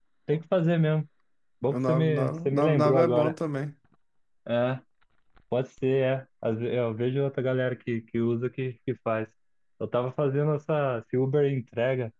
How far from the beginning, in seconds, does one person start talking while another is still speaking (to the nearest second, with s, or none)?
2 s